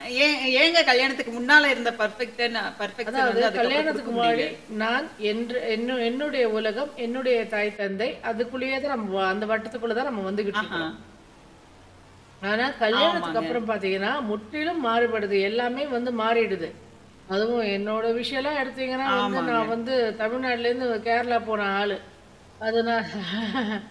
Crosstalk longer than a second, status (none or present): present